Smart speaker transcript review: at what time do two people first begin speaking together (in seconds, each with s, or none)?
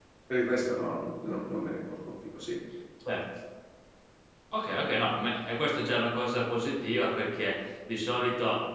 none